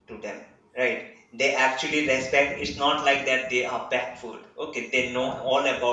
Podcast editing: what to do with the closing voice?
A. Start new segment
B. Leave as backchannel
B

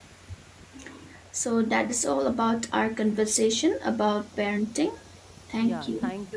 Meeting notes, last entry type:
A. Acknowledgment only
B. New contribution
B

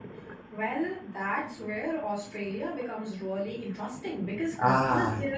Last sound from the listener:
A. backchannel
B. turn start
A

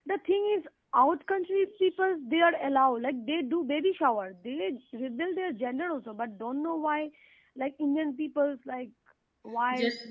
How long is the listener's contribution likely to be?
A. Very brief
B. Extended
B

